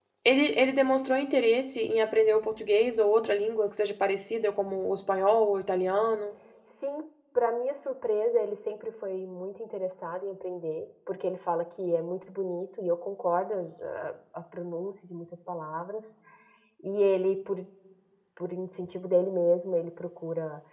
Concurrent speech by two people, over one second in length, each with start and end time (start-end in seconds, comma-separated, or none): none